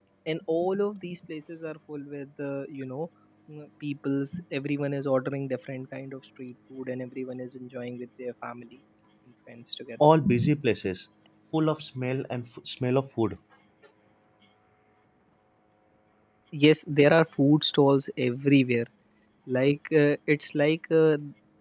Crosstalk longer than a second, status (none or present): none